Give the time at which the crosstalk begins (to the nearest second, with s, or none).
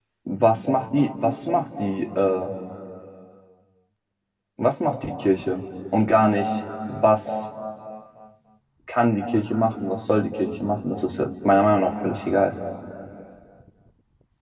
none